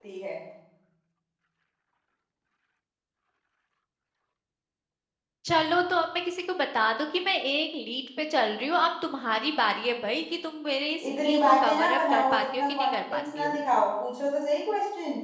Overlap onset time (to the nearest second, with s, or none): 11 s